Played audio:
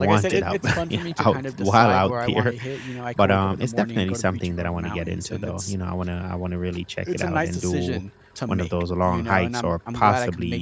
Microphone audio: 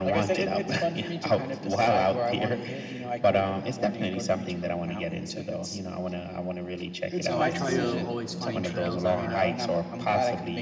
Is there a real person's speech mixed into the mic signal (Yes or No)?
Yes